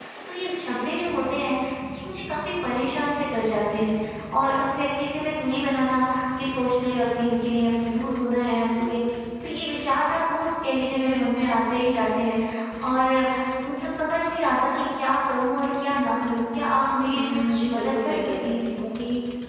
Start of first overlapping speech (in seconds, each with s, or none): 17.1 s